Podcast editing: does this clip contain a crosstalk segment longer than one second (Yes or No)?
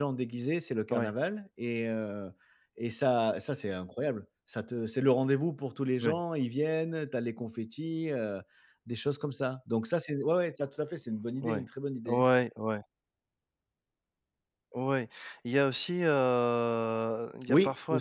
No